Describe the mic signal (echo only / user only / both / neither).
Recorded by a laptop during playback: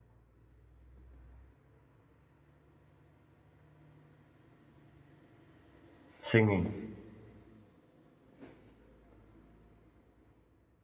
user only